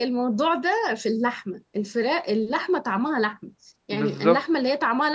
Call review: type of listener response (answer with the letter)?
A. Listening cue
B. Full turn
A